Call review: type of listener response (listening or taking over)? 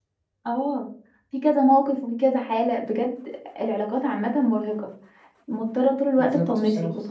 listening